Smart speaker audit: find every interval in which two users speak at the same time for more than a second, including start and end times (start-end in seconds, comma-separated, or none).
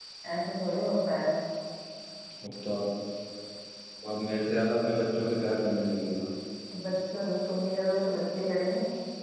none